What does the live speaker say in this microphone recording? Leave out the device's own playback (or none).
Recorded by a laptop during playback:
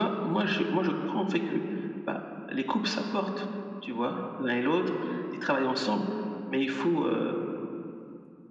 none